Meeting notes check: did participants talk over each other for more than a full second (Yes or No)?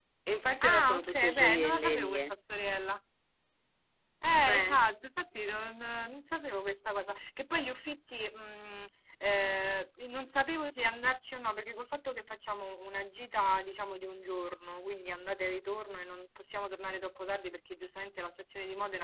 Yes